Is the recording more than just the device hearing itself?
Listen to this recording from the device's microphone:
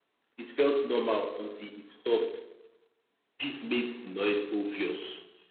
Yes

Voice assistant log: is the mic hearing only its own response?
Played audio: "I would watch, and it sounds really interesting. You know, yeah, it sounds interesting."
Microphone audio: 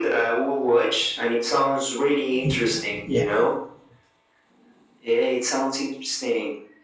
No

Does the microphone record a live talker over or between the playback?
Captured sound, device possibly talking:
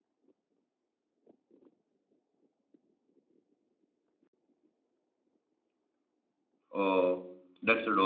Yes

